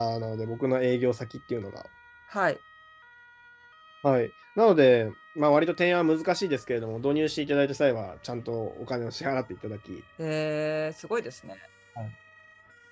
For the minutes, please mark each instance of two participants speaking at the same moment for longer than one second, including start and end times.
none

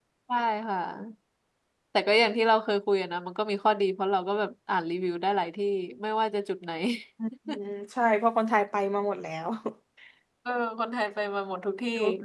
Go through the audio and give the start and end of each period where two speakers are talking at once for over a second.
none

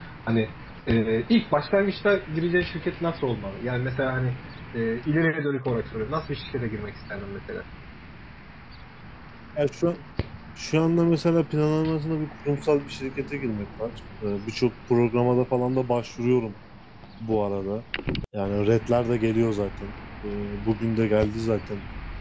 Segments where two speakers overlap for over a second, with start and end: none

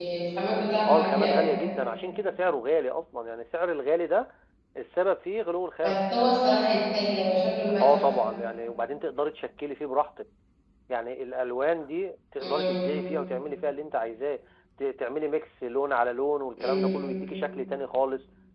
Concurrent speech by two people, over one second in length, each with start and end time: none

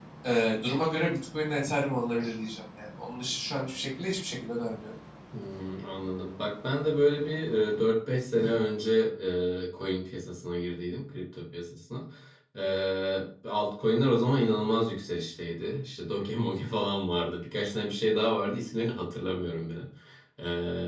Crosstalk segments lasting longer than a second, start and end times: none

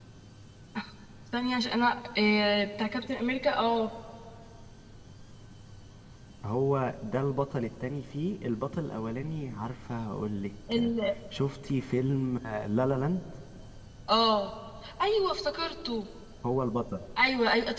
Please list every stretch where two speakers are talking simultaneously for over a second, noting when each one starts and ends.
none

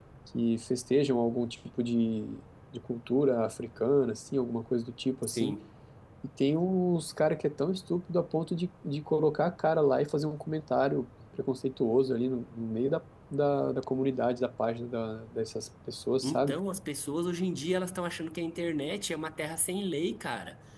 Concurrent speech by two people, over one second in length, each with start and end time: none

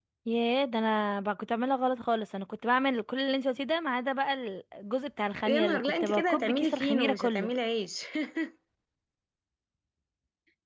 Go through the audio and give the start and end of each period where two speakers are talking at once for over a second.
5.5-7.5

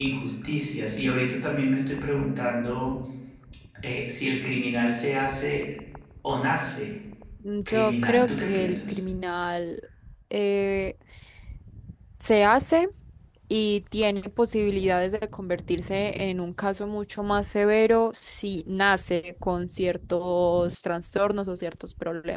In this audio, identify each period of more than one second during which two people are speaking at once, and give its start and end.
7.7-9.0

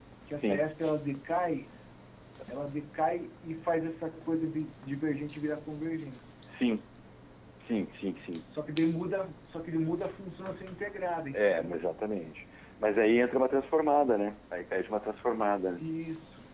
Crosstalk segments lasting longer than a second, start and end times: none

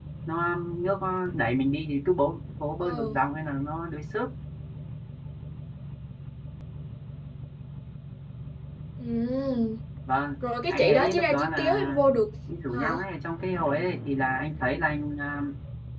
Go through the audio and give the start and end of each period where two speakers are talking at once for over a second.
10.7-12.0

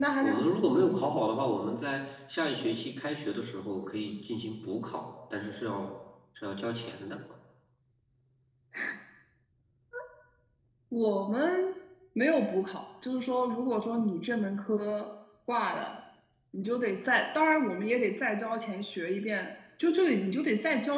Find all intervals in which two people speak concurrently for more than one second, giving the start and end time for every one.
none

